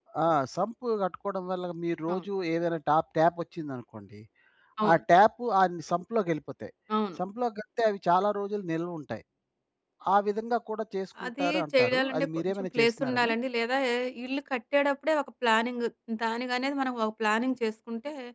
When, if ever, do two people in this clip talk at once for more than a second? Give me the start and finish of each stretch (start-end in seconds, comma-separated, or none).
11.2-13.3